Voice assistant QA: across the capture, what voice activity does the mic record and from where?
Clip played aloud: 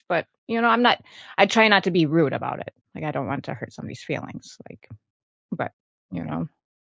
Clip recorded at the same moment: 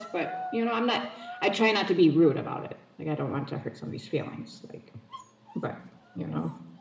echo only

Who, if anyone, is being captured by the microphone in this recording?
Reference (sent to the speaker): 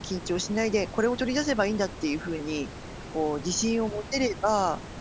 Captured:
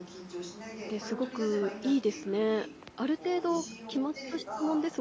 both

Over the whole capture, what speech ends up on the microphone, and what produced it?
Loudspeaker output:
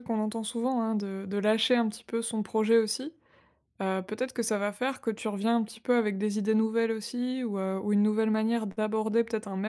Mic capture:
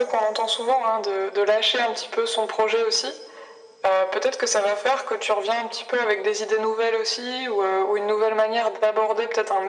echo only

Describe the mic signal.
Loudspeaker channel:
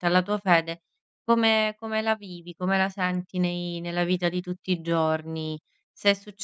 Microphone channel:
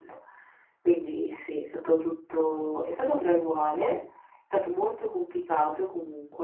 user only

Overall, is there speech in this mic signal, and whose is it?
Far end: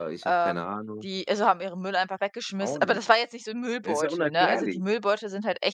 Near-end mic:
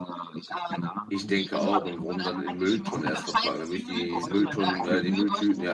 both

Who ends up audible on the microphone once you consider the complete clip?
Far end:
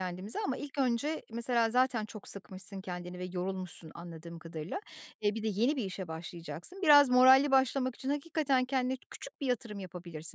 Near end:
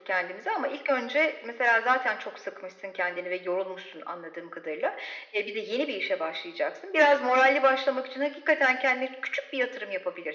echo only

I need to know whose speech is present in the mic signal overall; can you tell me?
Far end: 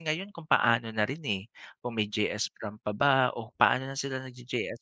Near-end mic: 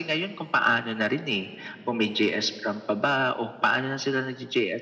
echo only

